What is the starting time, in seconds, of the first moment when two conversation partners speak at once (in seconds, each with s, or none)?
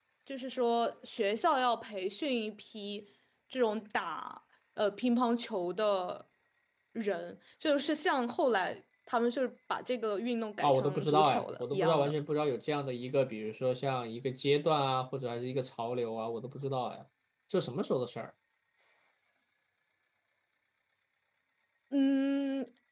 10.6 s